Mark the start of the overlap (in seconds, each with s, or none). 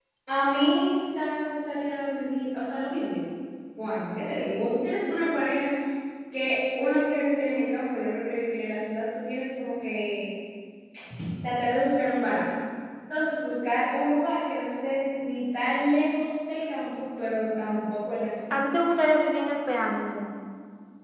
none